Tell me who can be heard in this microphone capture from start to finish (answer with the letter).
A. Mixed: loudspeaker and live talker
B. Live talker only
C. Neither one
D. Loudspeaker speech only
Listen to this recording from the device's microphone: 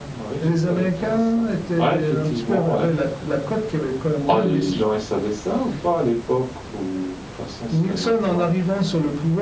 A